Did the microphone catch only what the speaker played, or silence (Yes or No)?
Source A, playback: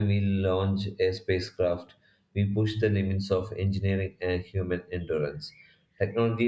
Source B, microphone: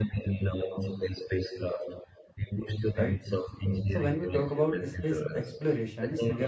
No